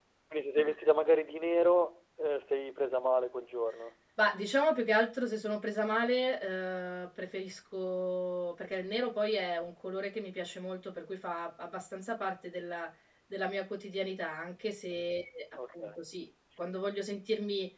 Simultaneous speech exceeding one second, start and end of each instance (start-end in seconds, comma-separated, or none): none